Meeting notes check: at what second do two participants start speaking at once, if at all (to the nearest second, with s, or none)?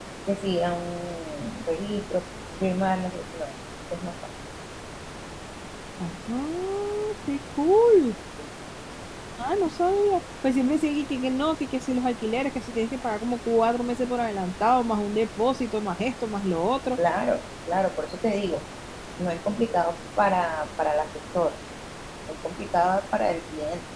none